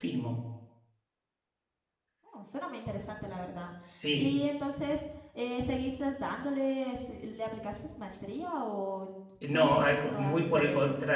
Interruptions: present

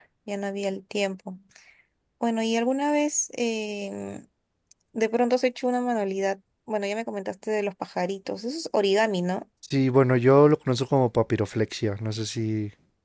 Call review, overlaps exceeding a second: none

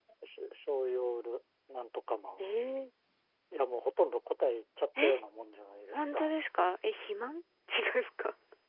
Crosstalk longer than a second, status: none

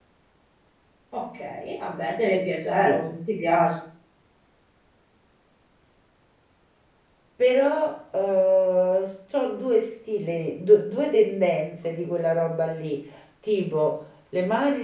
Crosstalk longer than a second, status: none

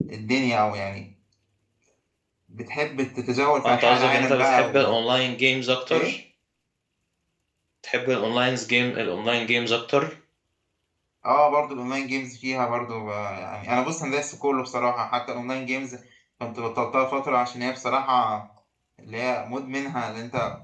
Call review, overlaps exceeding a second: present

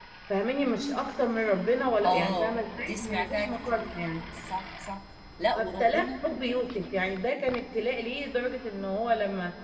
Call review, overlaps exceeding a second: present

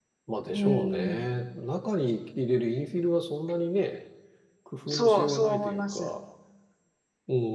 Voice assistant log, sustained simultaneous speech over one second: present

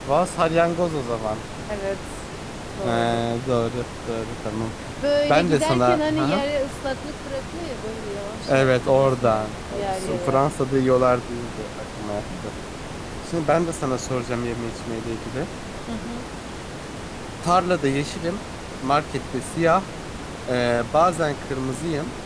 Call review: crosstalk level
present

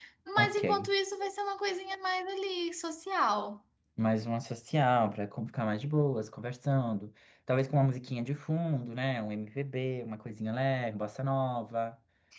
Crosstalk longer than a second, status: none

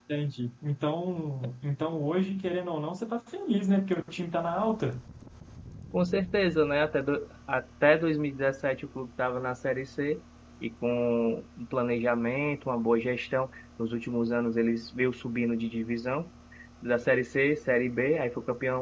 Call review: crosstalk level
none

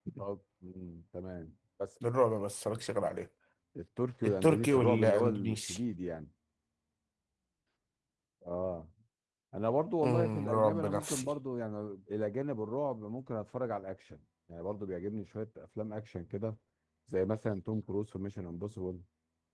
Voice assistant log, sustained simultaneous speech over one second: present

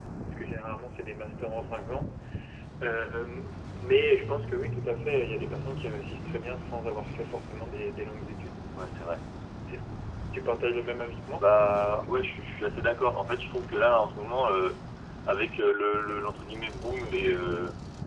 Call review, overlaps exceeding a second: none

